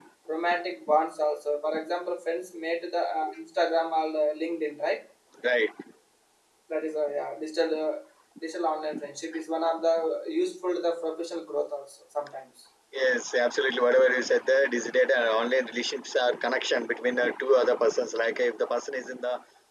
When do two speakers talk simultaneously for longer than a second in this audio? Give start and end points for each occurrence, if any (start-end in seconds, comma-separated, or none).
none